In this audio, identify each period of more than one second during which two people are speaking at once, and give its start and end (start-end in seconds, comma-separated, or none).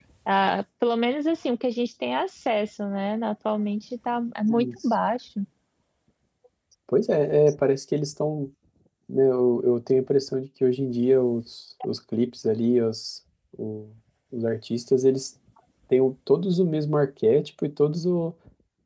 none